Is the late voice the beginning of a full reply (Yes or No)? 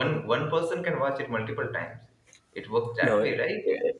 Yes